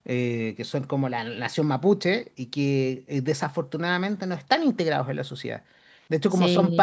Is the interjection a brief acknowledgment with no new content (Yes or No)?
Yes